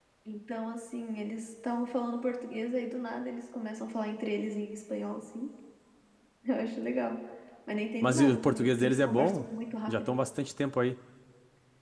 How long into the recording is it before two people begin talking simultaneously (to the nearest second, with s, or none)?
8 s